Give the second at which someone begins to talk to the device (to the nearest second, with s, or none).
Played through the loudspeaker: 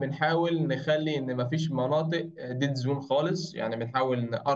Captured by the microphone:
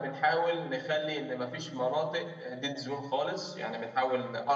none